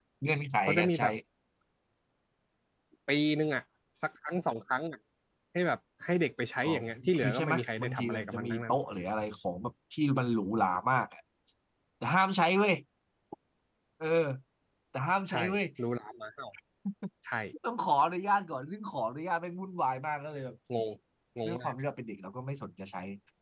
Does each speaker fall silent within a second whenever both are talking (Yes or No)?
No